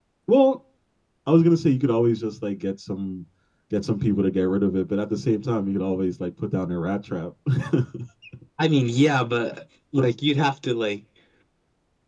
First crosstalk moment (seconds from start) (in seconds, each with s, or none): none